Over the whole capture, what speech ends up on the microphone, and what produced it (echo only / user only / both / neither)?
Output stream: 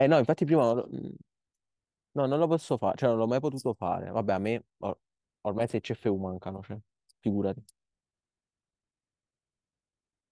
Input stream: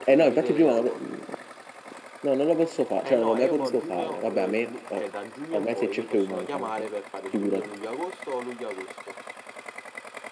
both